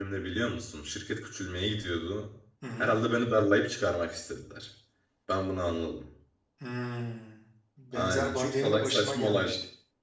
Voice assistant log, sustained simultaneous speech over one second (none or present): present